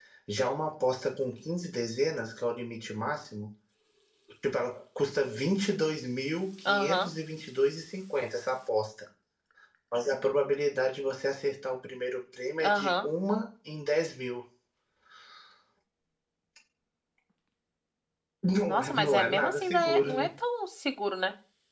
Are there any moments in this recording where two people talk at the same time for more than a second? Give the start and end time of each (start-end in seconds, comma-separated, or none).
18.7-20.3